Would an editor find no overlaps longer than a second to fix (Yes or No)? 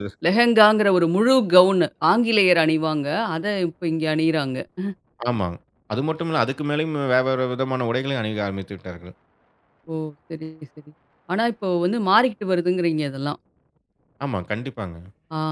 Yes